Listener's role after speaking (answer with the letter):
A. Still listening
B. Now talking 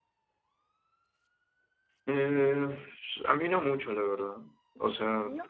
A